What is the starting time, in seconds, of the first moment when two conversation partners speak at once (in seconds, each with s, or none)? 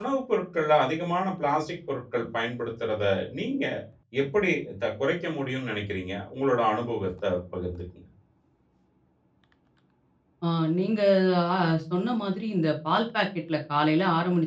none